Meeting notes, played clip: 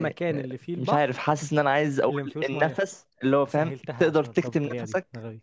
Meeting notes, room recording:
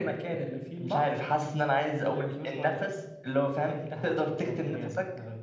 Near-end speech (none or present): none